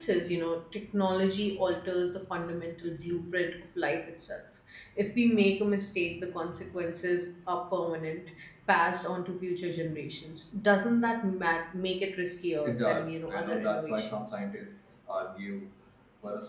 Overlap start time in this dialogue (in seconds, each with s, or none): 12.6 s